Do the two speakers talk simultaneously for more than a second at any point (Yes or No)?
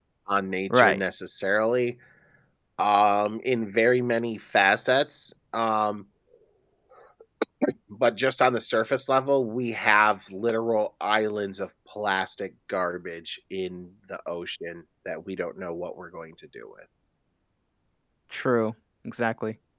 No